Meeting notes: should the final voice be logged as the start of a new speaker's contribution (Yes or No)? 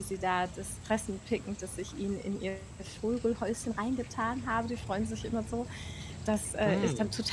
No